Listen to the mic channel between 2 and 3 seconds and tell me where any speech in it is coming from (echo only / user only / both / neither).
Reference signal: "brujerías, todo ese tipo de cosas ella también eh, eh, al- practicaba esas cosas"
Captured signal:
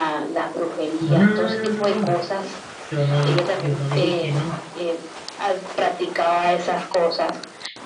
both